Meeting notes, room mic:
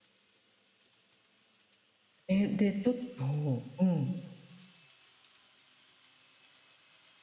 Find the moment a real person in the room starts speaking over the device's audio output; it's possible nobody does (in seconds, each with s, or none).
2.3 s